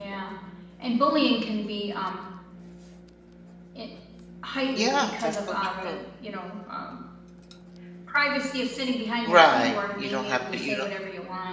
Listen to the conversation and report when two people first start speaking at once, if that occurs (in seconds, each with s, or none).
4.8 s